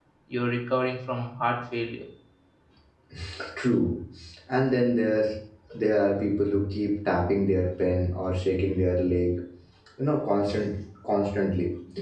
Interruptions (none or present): none